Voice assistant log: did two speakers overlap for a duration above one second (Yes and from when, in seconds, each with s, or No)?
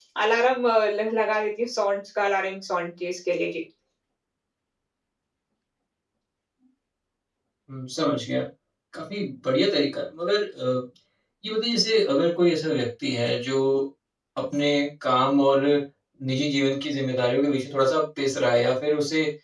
No